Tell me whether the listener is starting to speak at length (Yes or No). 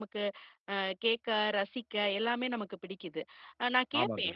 No